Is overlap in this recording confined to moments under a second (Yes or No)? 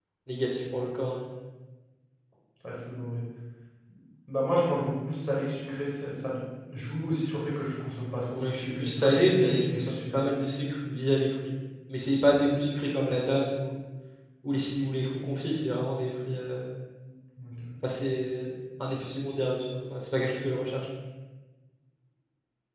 No